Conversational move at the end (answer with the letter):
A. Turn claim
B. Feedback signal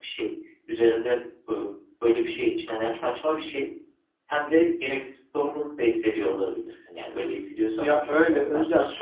A